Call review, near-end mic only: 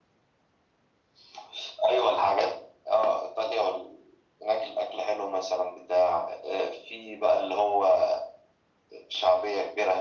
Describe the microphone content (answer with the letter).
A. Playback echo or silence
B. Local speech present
A